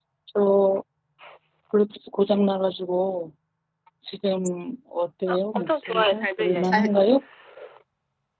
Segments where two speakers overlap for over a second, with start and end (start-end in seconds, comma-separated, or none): 5.3-6.9